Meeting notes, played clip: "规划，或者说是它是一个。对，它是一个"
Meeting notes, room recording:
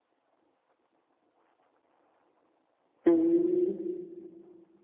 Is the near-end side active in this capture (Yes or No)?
Yes